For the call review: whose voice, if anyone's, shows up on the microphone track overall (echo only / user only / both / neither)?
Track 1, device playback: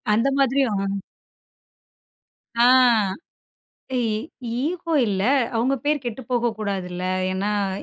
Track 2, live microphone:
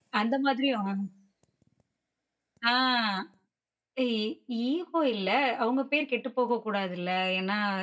echo only